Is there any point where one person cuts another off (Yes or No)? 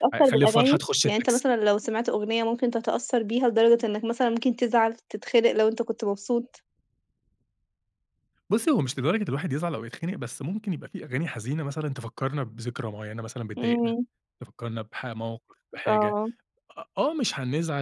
Yes